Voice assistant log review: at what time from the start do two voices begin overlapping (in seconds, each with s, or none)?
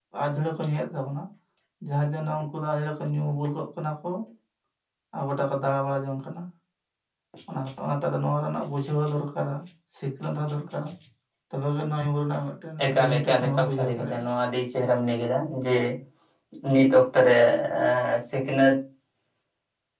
12.8 s